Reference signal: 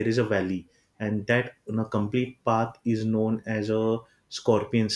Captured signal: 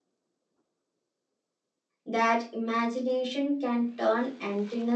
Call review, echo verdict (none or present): none